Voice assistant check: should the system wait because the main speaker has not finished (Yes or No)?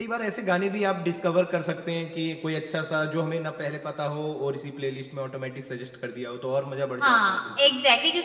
No